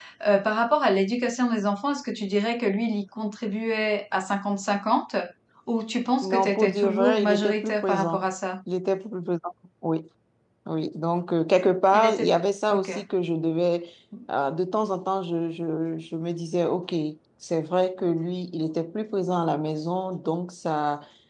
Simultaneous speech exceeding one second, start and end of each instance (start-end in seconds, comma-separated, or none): 6.2-8.2